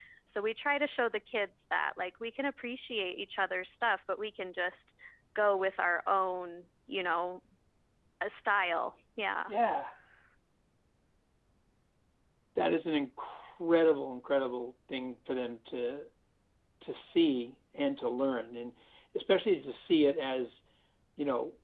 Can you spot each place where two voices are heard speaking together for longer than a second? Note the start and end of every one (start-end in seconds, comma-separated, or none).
none